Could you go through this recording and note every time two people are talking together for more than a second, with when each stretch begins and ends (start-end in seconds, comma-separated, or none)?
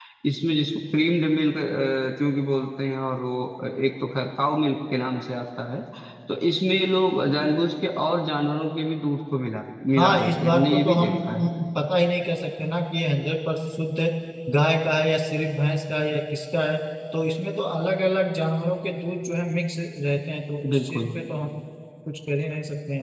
10.0-11.5